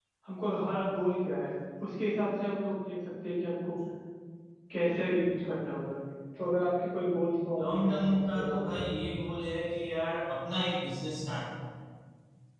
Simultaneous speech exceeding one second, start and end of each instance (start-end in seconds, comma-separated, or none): 7.6-9.0